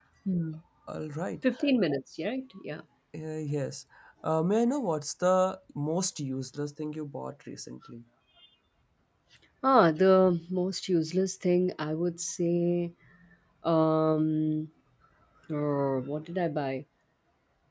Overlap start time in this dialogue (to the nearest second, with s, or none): none